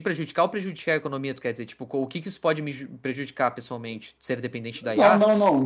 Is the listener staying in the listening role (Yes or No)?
No